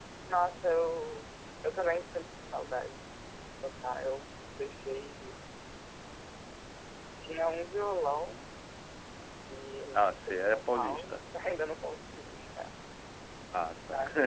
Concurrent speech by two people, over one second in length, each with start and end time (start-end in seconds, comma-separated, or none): 9.9-11.2